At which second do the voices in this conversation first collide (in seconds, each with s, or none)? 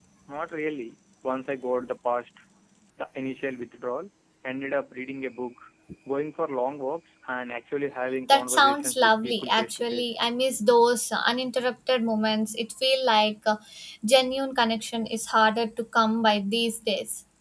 8.3 s